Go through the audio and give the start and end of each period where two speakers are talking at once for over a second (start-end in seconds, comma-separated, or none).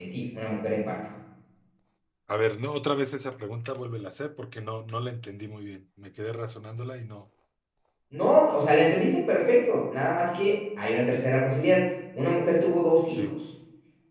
none